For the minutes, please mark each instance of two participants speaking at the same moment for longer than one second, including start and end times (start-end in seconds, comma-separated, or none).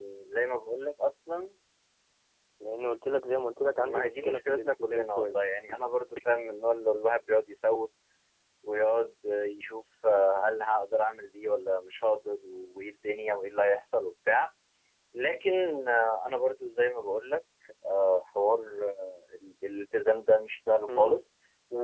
3.8-5.3